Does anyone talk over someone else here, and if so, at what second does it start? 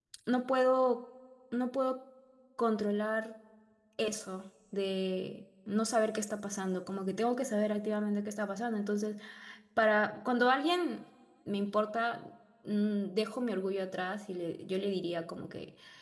none

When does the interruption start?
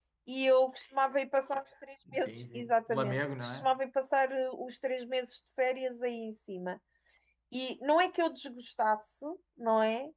2.1 s

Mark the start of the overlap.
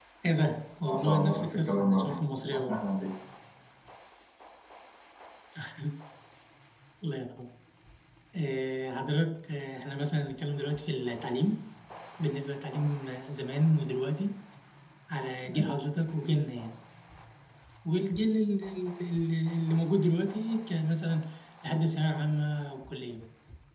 0.8 s

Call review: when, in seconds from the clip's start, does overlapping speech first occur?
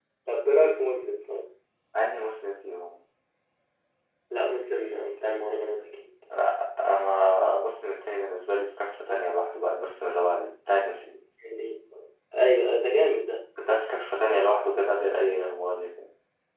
none

